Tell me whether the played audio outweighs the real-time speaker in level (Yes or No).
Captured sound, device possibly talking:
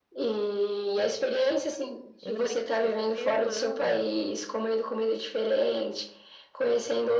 Yes